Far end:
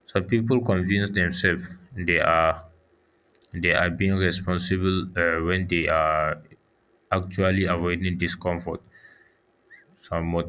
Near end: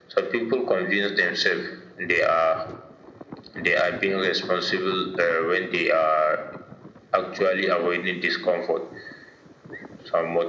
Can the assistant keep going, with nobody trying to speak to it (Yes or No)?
Yes